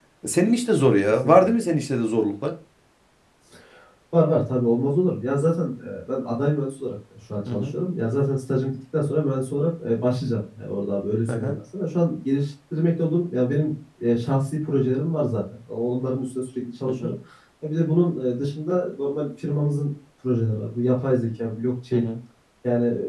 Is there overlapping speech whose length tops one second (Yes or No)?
No